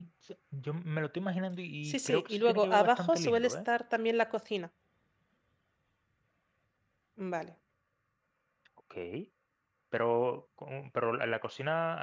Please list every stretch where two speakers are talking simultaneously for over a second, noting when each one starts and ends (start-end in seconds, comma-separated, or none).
1.8-3.6